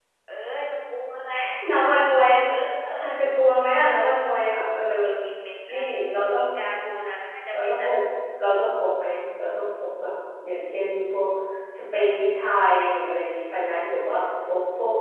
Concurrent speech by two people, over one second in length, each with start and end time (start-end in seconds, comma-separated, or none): none